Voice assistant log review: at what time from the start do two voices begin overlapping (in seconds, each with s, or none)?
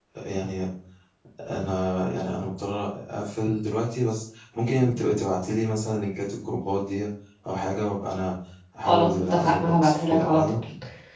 8.9 s